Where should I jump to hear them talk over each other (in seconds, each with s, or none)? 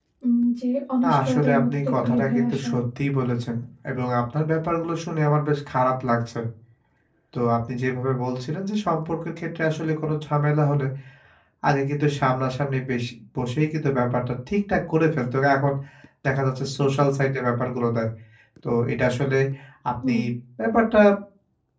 1.0 s